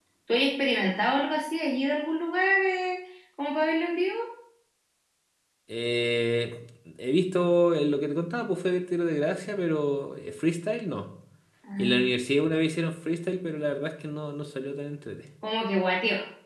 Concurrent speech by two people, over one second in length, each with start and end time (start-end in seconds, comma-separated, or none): none